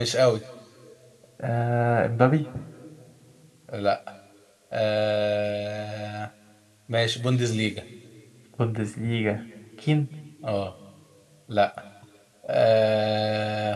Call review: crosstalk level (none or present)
none